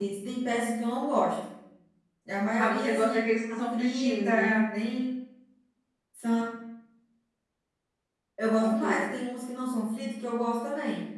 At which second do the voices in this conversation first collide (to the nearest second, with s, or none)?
3 s